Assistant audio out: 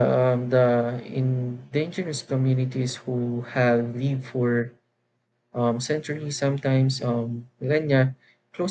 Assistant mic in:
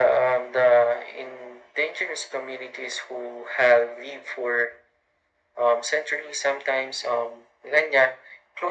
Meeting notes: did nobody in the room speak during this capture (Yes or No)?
Yes